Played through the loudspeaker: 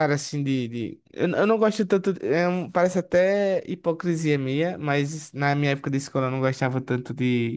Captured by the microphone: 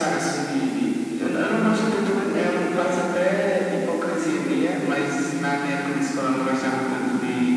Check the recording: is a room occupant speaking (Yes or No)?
Yes